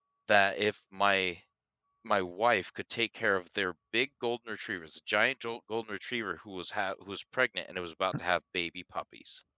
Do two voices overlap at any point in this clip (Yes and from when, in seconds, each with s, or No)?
No